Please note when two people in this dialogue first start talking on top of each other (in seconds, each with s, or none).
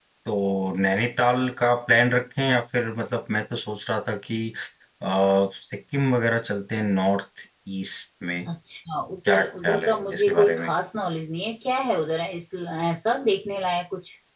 9.3 s